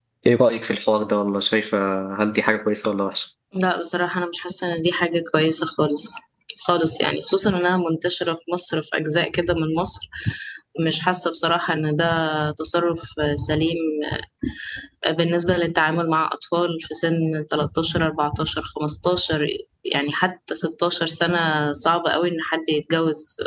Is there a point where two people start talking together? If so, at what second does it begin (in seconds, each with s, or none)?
none